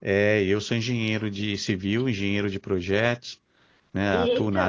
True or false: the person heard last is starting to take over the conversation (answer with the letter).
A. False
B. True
A